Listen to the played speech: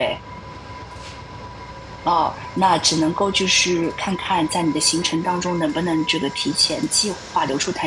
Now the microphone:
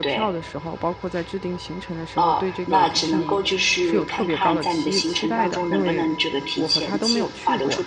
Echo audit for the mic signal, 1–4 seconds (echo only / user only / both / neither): both